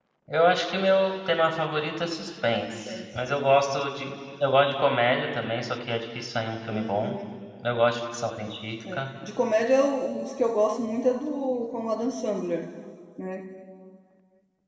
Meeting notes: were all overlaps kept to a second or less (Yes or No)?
Yes